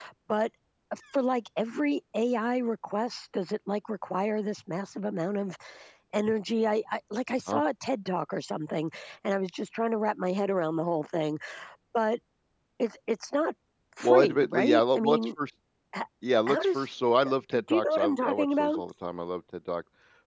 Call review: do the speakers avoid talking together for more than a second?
No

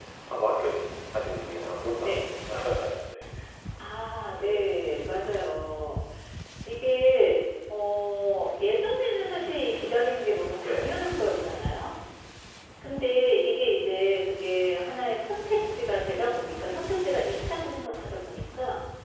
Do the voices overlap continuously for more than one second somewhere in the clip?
No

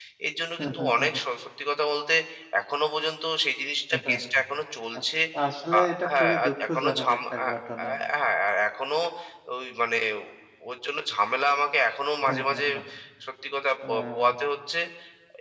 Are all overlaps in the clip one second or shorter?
No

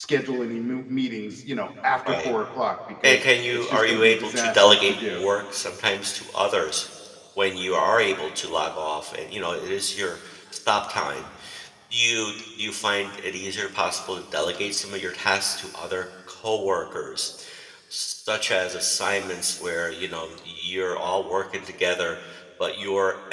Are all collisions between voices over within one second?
No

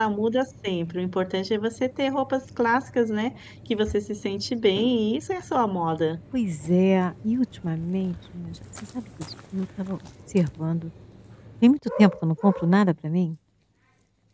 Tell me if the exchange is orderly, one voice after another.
Yes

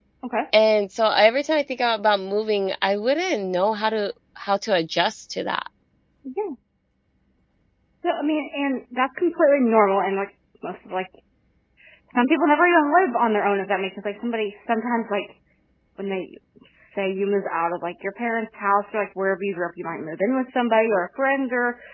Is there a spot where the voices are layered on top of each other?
No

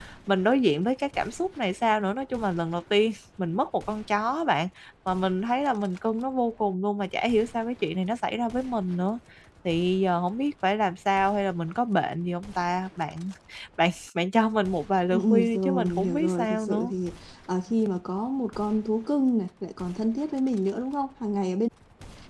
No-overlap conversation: No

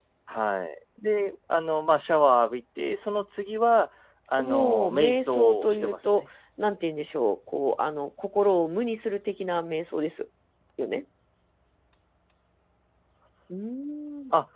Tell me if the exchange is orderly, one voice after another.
No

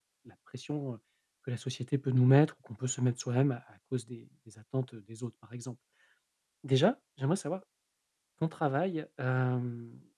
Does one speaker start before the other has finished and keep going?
No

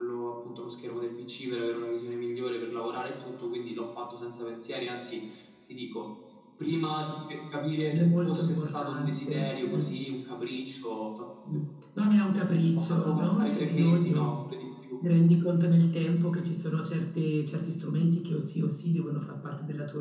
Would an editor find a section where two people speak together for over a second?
Yes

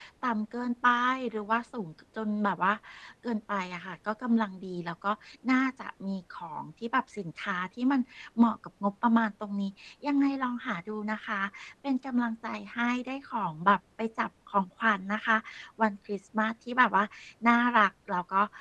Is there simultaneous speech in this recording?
No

